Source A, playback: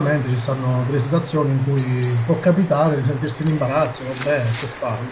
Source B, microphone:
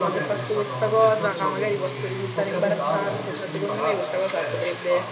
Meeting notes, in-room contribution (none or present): present